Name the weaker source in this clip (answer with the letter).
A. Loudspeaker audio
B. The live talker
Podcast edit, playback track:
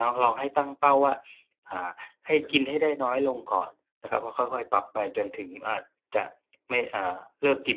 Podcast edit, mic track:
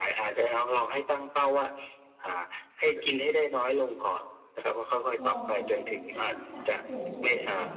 B